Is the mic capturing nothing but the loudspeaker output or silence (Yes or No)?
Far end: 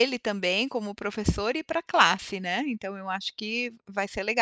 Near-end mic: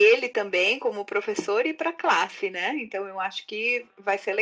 Yes